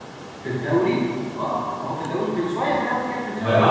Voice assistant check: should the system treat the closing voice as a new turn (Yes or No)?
Yes